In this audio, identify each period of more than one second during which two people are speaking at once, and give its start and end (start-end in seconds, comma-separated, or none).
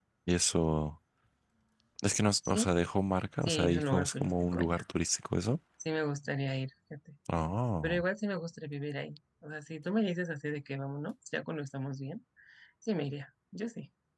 3.4-4.8